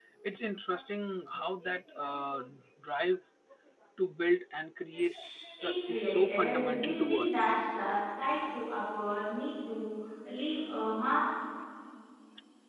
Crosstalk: present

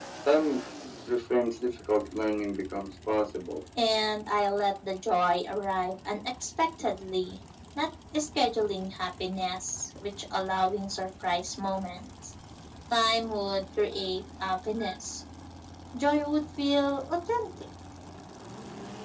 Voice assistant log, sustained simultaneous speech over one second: none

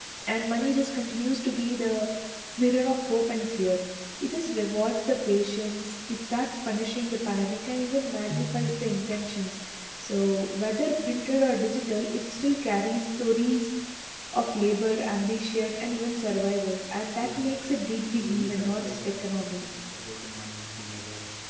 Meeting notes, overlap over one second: present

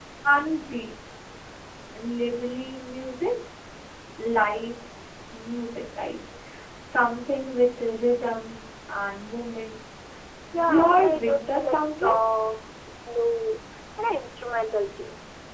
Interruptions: present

